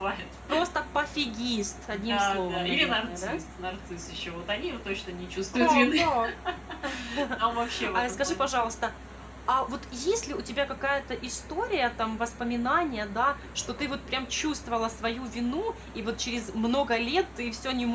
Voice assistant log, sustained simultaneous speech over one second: present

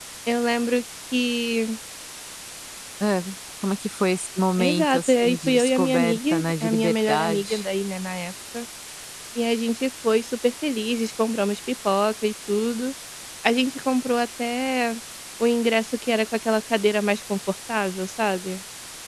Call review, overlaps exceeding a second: present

